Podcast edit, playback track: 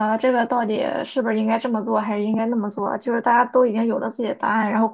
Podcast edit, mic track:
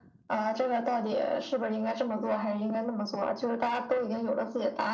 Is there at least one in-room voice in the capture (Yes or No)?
No